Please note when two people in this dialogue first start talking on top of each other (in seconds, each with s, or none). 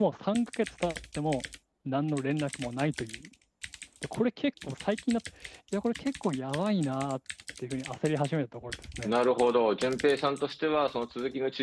none